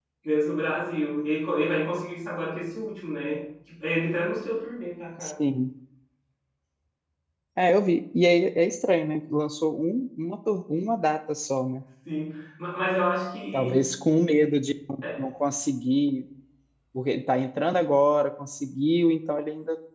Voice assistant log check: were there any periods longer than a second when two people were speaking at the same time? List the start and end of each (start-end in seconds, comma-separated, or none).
none